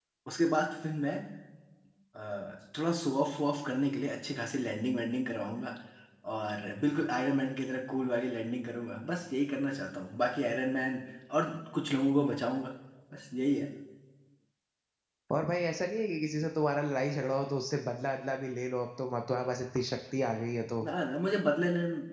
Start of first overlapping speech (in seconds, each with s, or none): none